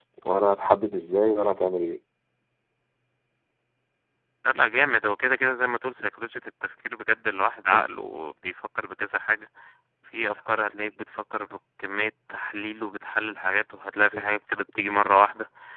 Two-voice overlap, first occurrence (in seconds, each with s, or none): none